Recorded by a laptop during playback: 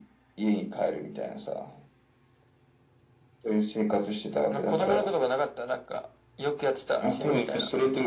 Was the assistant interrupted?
No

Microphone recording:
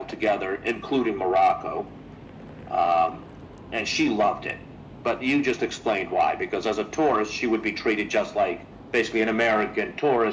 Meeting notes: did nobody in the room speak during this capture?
Yes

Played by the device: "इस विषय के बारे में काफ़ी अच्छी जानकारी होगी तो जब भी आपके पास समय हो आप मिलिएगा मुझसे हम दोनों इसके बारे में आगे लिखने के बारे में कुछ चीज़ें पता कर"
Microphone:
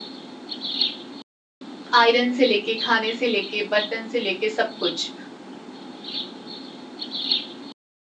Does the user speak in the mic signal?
Yes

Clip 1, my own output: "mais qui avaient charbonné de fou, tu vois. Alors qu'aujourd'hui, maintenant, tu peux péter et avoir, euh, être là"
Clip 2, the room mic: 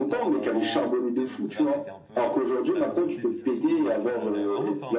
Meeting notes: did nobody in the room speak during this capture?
No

